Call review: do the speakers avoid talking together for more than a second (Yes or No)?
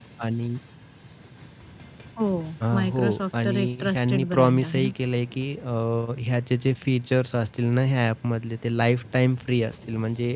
No